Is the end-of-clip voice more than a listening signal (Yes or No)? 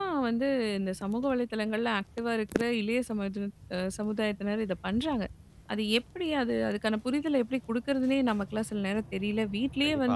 Yes